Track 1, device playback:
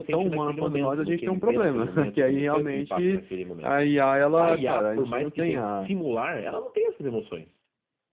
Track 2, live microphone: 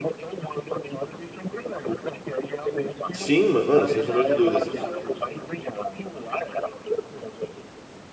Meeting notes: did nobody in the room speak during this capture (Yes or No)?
No